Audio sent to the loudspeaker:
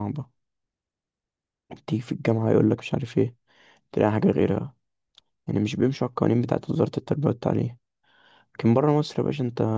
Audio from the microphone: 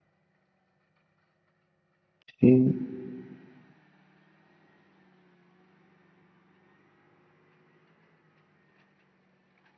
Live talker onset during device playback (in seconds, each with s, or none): 2.4 s